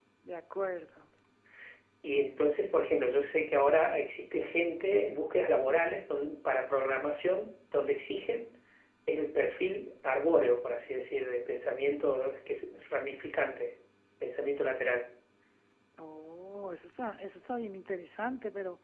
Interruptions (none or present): none